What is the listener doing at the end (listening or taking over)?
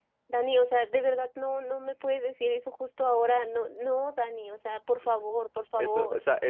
taking over